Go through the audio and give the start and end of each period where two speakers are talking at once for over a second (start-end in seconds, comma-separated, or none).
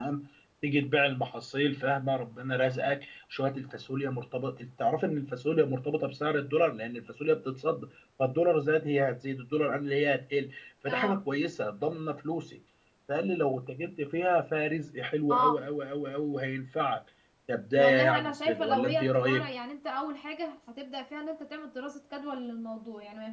17.8-19.5